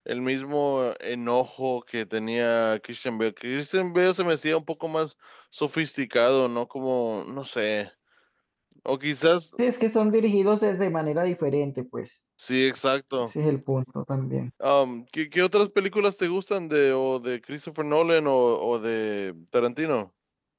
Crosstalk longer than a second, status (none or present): none